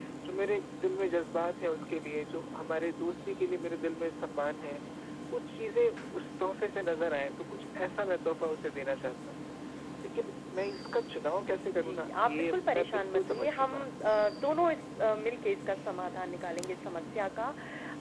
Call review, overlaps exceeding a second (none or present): present